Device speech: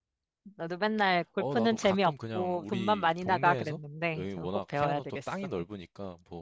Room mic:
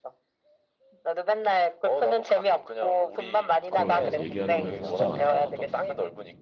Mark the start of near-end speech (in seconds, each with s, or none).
3.7 s